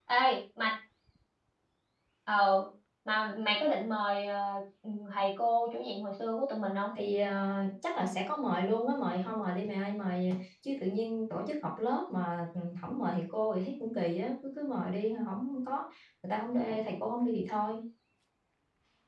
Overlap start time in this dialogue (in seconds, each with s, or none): none